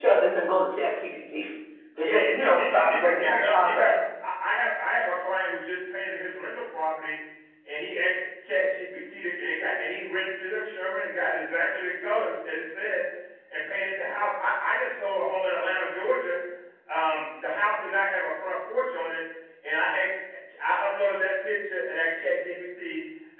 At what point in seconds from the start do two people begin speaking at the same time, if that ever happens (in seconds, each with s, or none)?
2.0 s